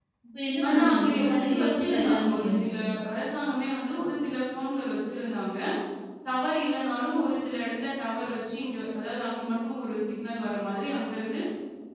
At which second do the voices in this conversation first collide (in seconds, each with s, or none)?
0.7 s